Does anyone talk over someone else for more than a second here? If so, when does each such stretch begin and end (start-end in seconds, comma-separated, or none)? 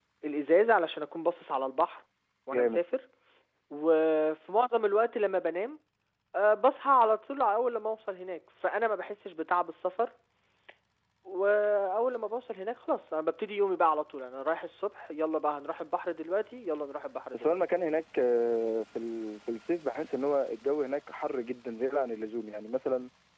none